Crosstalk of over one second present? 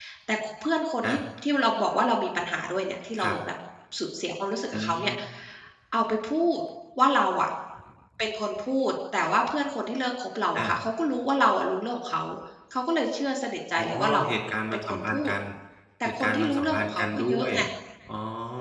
Yes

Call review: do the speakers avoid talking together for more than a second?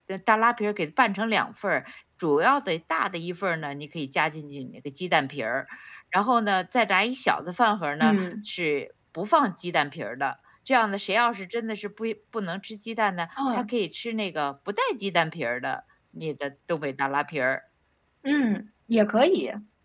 Yes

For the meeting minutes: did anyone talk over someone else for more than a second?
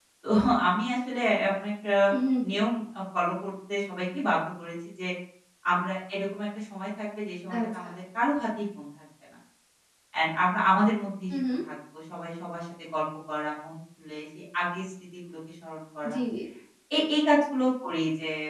No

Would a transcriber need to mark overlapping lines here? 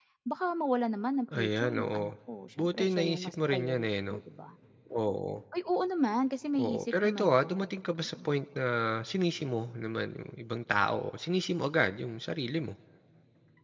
Yes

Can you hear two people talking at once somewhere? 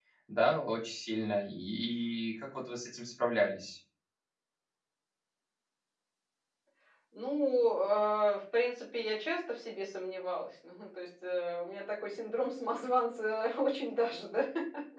No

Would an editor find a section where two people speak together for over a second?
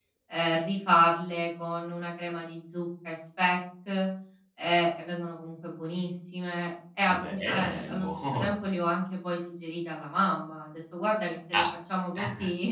Yes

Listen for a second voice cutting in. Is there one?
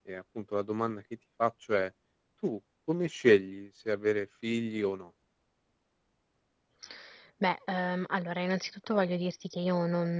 No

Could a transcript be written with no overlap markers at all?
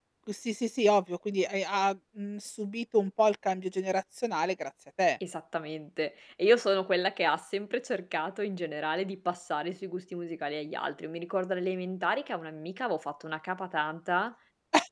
Yes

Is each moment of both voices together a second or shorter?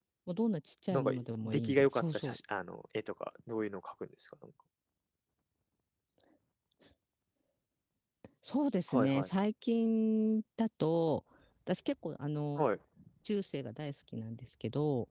No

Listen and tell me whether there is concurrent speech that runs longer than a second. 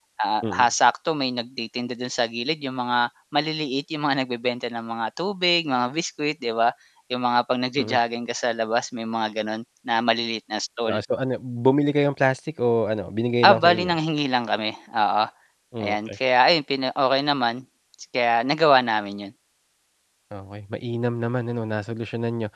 No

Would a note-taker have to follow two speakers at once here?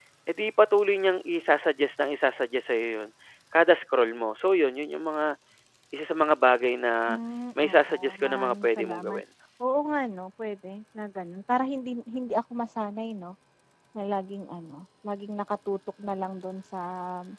Yes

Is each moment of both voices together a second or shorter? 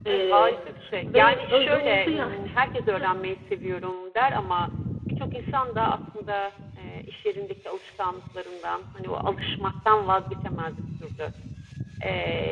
No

